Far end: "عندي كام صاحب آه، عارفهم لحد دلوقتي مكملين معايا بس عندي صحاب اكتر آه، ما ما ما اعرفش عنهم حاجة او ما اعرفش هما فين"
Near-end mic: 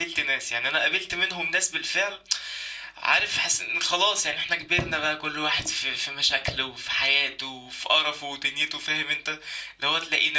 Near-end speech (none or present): present